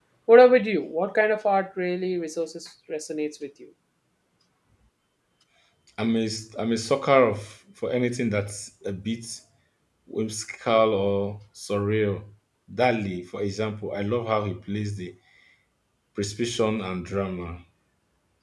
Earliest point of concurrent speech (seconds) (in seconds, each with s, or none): none